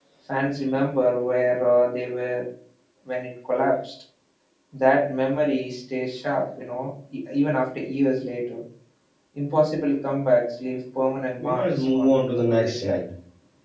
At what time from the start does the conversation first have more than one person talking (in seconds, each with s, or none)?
11.4 s